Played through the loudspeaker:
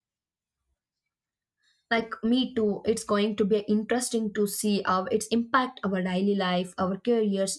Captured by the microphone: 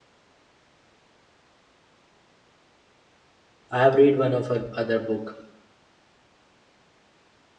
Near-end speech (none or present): present